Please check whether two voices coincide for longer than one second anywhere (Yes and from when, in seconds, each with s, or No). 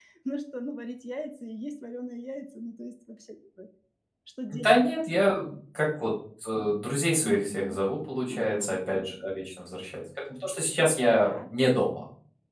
No